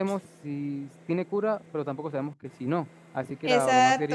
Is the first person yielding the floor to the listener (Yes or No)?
Yes